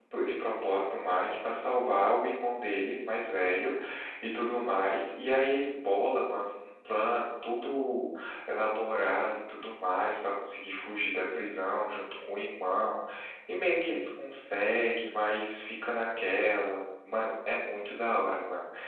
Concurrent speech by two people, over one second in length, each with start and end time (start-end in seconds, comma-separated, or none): none